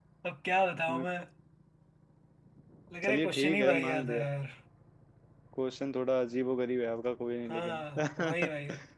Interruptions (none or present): present